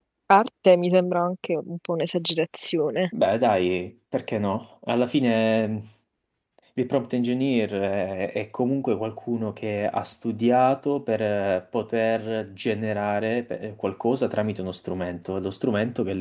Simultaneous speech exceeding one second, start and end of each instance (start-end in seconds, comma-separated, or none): none